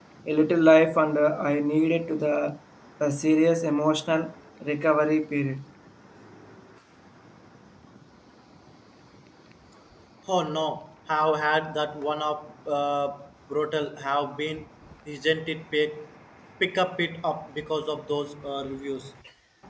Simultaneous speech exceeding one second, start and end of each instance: none

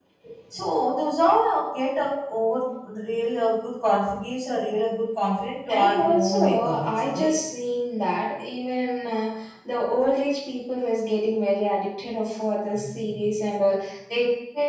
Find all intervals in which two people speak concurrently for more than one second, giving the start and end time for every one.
5.7-7.4

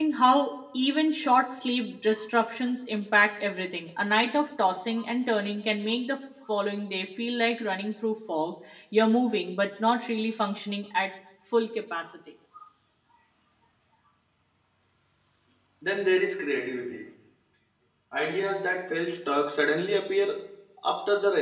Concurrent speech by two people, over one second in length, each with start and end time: none

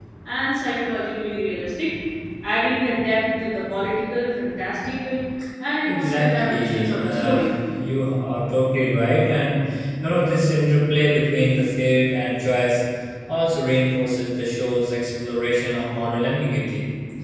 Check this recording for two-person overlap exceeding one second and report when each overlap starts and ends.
5.8-7.3

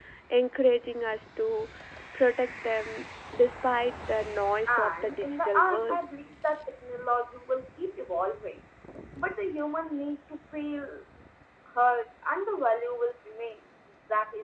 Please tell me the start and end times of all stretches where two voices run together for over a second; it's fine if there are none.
4.7-6.0

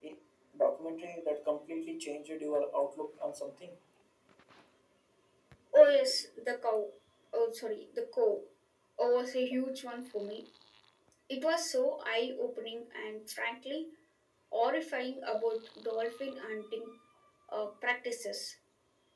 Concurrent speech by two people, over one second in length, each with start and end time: none

